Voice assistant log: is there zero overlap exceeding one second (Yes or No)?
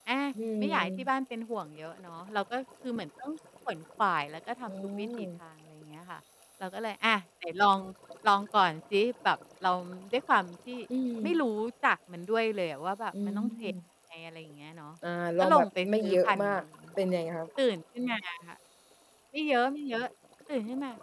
No